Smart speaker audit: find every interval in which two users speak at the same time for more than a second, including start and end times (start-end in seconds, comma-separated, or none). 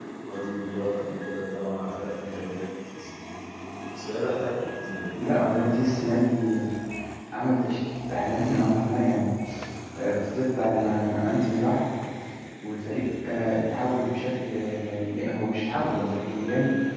none